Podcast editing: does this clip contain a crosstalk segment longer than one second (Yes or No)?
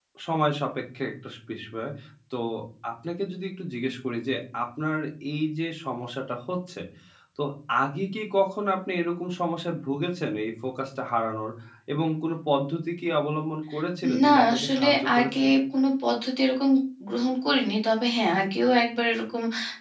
Yes